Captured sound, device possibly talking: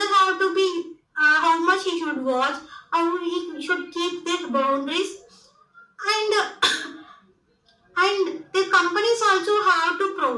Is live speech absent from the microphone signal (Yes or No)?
Yes